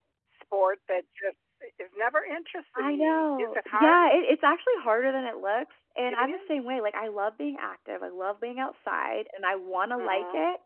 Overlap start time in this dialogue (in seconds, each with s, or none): 2.8 s